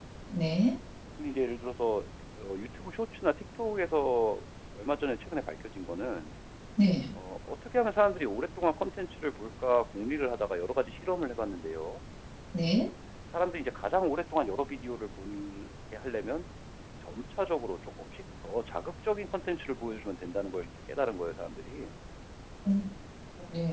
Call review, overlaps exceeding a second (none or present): none